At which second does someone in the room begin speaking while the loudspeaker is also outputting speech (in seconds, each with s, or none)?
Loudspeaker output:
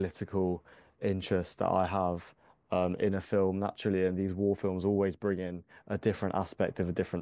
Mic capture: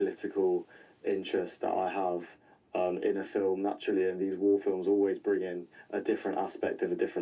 none